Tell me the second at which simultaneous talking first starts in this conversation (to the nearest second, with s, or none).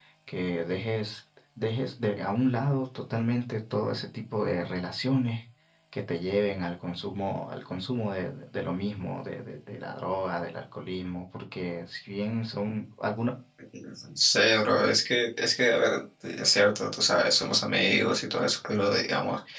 none